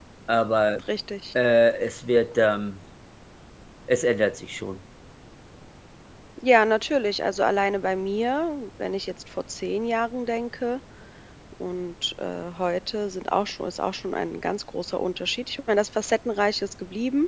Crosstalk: none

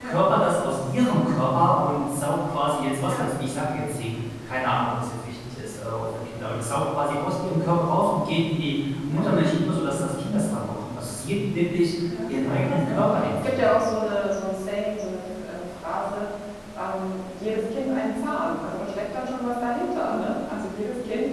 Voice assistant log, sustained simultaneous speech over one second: present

